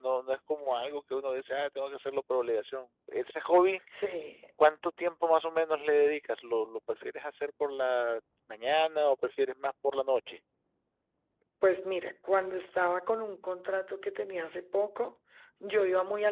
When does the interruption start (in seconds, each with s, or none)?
none